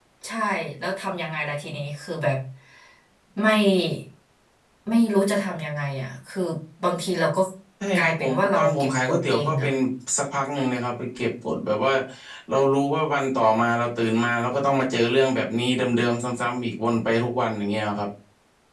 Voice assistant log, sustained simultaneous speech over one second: present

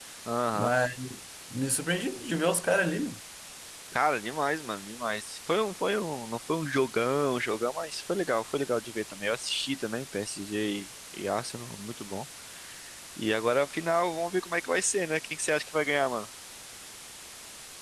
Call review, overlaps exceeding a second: none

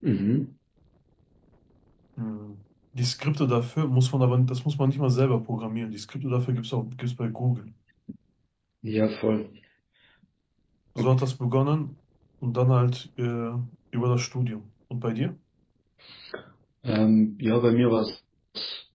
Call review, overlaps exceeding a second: none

